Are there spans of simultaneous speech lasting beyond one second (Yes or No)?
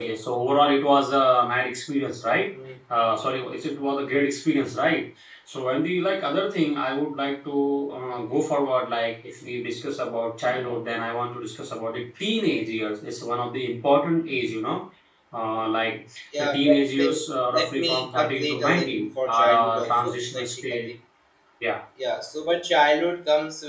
Yes